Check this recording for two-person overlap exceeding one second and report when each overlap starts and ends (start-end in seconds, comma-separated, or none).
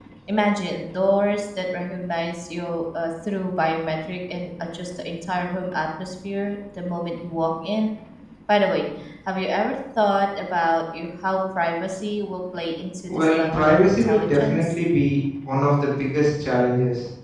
13.1-14.7